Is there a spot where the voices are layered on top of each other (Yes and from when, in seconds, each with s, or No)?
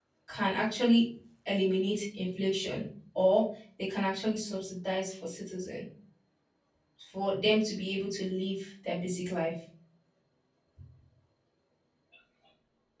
No